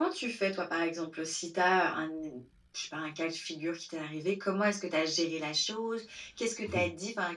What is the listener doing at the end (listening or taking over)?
listening